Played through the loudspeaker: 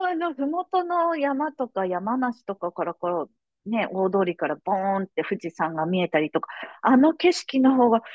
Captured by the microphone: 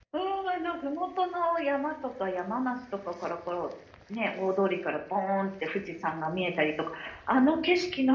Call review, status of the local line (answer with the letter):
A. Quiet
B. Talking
A